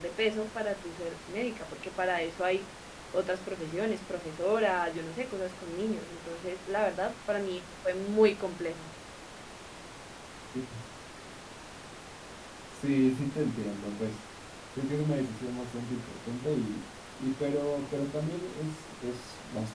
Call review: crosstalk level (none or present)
none